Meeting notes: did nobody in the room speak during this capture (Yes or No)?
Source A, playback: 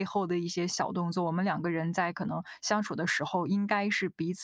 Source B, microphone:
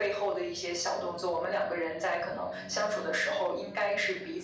Yes